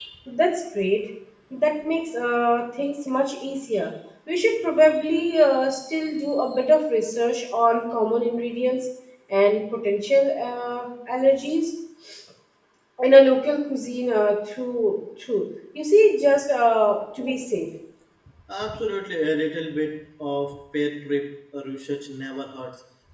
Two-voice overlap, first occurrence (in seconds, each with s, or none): none